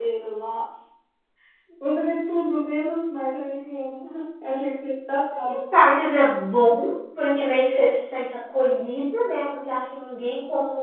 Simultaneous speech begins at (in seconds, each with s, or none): none